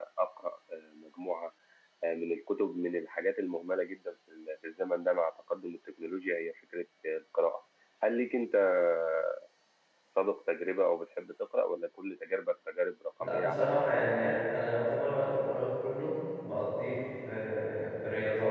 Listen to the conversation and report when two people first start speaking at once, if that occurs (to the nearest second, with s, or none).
13 s